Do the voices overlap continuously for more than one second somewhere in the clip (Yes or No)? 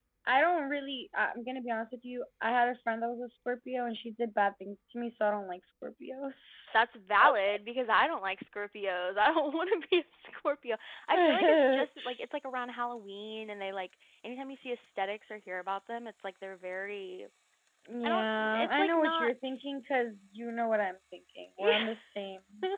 Yes